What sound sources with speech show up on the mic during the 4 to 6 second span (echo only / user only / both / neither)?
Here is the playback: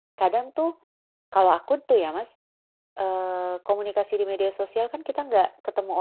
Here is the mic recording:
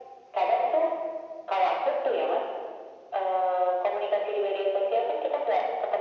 echo only